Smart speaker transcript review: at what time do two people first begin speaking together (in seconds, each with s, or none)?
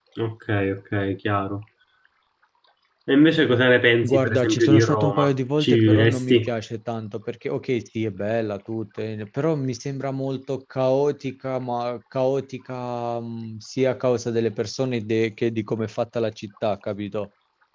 4.0 s